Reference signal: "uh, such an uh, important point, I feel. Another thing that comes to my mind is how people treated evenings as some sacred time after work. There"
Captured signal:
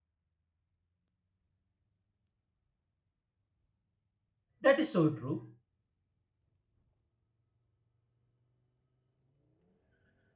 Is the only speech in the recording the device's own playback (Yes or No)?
No